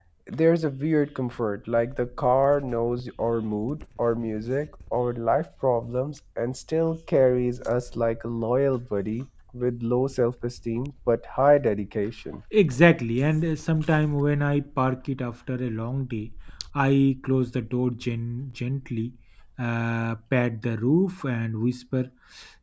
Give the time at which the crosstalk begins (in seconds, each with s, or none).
none